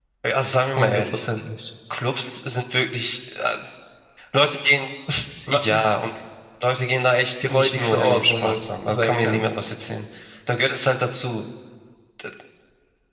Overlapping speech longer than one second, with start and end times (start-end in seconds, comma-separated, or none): 7.5-9.5